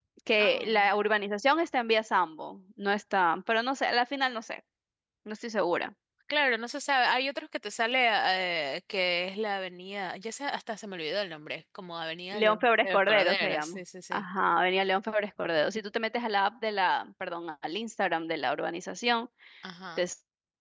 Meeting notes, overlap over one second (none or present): present